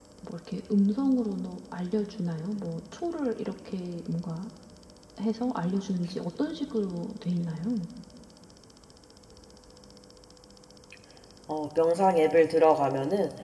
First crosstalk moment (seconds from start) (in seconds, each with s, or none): none